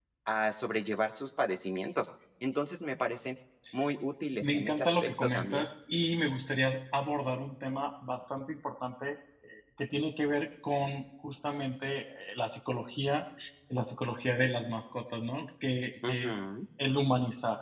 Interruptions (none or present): present